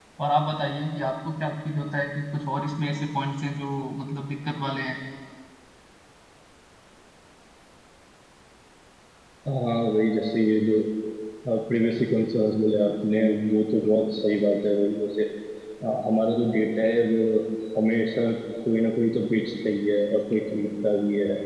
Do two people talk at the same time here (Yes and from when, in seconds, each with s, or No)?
No